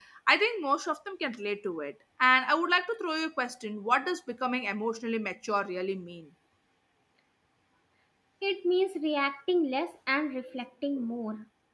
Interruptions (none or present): none